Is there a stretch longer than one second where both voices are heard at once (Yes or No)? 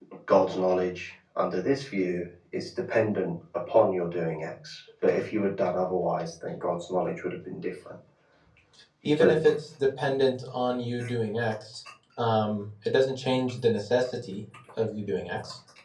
No